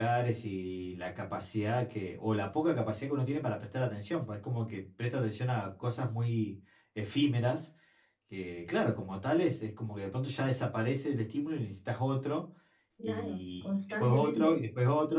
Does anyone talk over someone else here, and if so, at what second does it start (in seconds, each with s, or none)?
13.0 s